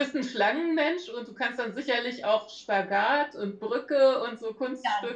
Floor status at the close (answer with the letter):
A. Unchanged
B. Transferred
B